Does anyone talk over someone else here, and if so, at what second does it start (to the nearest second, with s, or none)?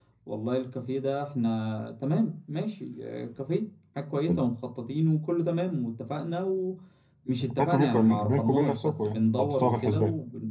8 s